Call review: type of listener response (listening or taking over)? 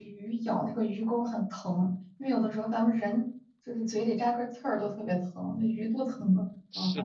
taking over